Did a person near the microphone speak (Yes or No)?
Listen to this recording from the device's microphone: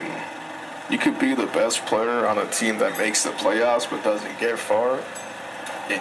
No